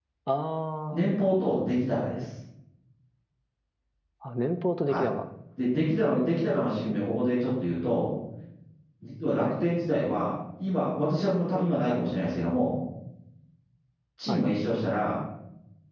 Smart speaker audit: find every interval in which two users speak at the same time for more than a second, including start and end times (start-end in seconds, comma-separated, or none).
none